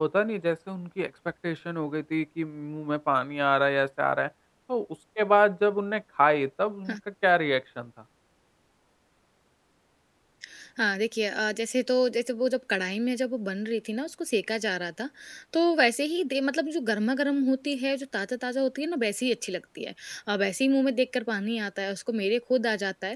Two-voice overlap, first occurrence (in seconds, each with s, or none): none